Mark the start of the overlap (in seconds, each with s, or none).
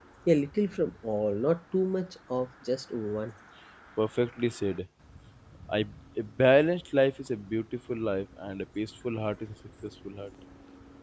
none